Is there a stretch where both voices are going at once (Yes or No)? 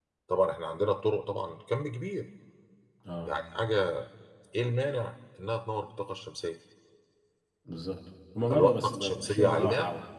Yes